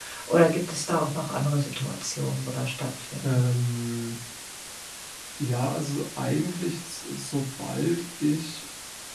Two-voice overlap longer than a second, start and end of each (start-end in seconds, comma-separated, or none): none